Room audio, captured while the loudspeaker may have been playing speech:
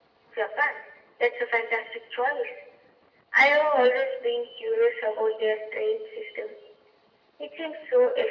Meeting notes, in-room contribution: none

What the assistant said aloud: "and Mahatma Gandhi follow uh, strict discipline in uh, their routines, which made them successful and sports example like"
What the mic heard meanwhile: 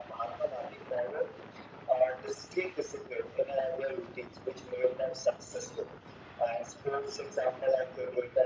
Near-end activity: none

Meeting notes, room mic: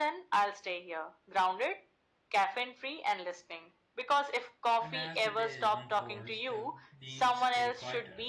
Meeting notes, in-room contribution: present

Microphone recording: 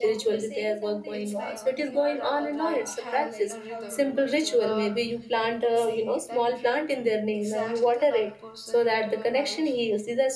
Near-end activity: present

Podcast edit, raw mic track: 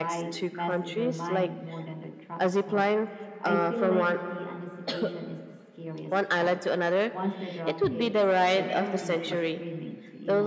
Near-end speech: present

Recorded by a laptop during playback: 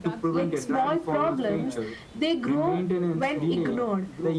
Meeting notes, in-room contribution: present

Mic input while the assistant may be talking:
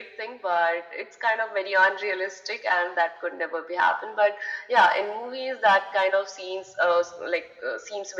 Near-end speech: none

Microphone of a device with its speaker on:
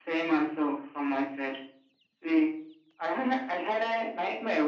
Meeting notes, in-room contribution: none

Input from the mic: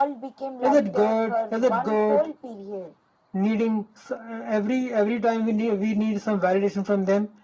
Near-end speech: none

